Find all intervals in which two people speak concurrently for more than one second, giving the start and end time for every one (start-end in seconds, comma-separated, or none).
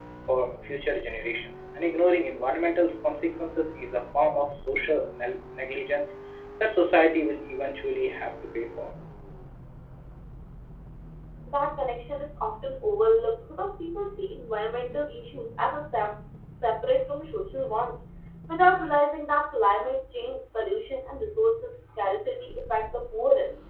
none